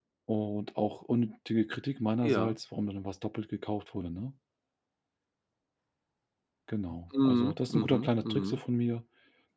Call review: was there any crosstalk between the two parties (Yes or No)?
Yes